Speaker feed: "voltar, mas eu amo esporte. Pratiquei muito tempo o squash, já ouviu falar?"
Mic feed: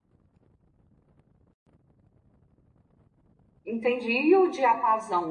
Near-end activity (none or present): present